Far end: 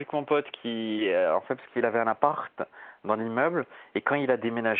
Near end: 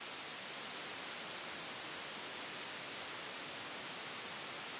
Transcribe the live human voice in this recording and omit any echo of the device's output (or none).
none